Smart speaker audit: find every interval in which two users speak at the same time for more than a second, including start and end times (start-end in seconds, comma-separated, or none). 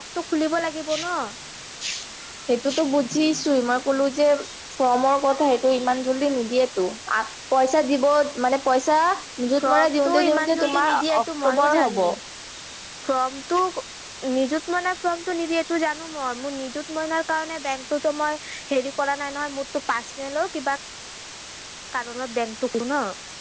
9.6-12.0